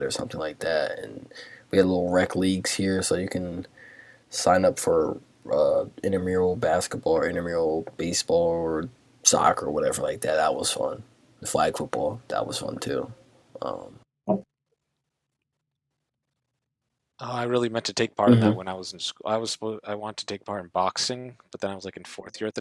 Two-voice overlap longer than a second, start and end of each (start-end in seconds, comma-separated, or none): none